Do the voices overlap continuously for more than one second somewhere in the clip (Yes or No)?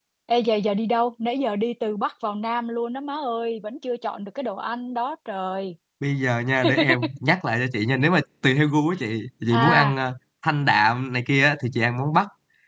No